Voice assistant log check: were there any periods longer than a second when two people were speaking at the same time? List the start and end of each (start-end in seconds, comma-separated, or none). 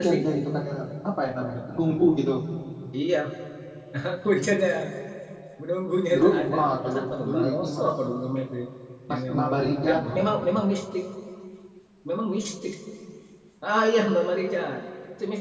6.1-8.0